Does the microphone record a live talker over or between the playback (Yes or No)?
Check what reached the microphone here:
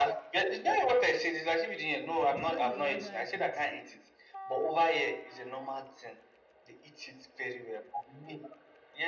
Yes